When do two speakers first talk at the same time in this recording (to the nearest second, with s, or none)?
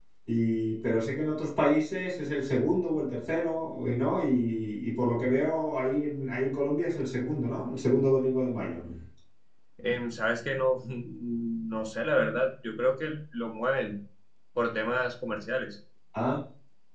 none